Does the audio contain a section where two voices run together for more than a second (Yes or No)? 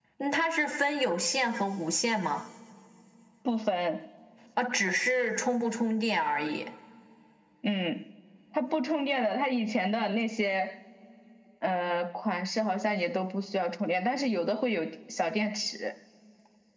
No